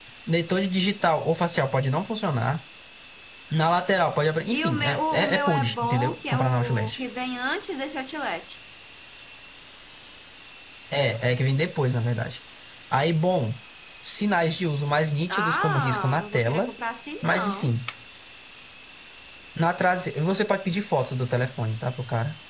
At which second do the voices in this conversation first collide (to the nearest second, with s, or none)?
5 s